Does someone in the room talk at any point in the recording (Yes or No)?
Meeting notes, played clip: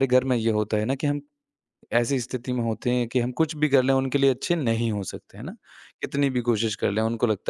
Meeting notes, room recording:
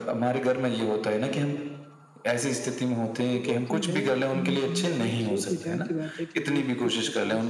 Yes